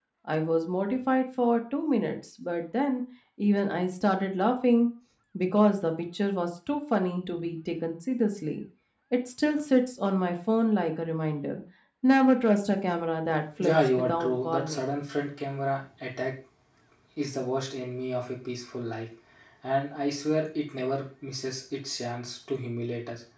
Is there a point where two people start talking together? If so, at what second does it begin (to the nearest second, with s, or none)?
14 s